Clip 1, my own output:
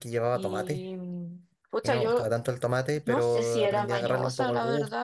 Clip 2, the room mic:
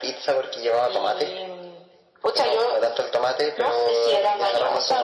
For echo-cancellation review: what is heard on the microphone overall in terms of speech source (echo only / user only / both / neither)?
echo only